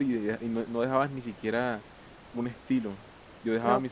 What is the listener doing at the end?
taking over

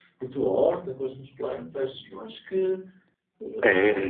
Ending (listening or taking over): taking over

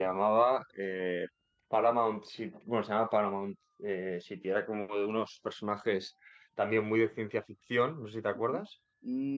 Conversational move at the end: taking over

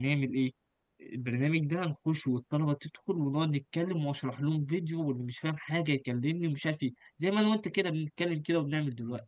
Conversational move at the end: taking over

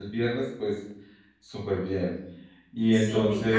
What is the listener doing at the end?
taking over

